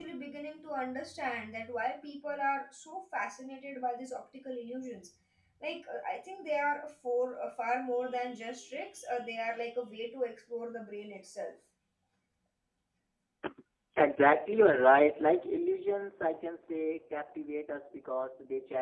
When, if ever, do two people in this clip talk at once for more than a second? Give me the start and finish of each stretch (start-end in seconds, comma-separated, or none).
none